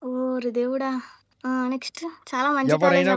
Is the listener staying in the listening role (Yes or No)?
Yes